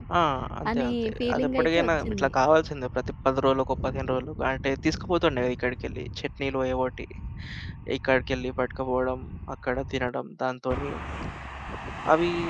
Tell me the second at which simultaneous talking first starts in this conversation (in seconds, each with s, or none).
0.8 s